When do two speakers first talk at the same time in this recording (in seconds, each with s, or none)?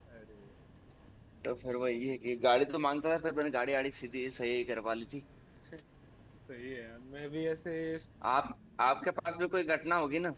none